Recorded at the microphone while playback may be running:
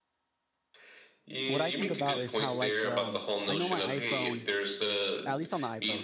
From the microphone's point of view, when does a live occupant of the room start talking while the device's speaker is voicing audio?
1.5 s

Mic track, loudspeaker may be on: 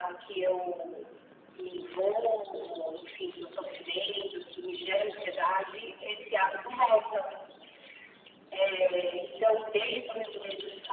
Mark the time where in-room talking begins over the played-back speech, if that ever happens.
none

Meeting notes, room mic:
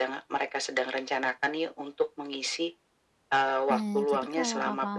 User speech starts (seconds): 3.7 s

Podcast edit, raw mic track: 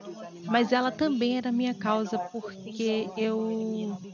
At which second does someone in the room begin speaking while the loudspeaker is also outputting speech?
0.5 s

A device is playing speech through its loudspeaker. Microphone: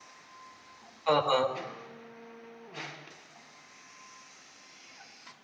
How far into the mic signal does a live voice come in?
1.1 s

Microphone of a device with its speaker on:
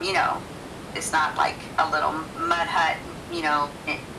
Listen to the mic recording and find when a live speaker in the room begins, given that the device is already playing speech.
none

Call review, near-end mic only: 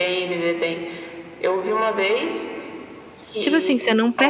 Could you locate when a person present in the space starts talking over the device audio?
3.4 s

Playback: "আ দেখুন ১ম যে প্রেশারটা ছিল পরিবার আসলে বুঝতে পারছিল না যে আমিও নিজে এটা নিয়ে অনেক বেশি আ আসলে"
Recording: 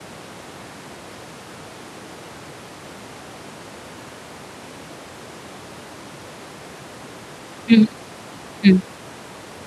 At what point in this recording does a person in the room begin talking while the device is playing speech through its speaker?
7.7 s

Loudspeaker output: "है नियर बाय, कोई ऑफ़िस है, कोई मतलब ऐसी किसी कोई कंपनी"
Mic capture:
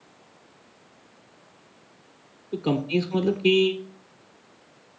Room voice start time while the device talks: 2.5 s

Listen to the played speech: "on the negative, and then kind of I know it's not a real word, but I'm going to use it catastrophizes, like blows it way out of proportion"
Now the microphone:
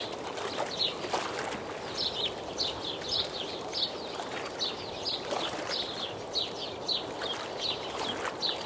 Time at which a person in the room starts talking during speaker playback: none

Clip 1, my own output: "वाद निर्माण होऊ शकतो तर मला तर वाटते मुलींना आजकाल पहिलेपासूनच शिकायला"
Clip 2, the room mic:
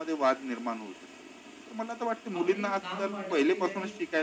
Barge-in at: 2.4 s

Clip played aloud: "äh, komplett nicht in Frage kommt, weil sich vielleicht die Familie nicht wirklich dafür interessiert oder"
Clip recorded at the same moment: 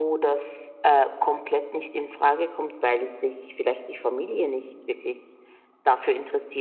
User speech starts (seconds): none

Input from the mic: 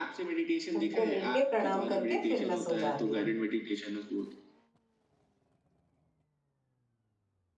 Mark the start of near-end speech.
0.8 s

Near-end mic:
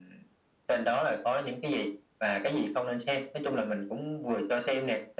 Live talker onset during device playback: none

